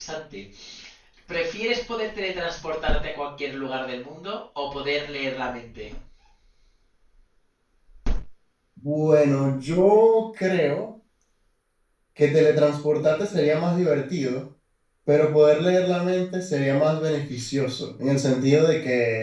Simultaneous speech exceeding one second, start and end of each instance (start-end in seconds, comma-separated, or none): none